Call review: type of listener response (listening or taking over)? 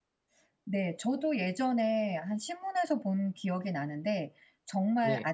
listening